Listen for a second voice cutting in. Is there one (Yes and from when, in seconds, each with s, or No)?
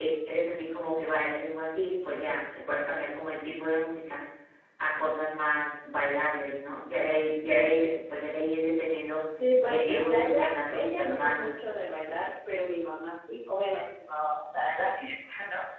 Yes, from 9.6 s